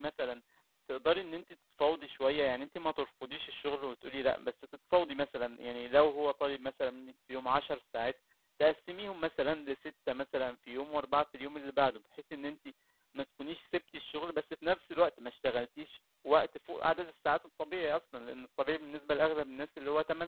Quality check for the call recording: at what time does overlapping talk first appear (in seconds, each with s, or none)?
none